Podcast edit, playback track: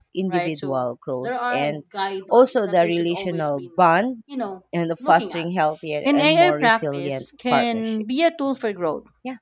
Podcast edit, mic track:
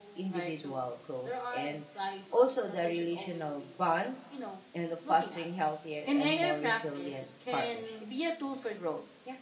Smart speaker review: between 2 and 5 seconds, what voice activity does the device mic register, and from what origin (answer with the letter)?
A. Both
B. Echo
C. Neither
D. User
B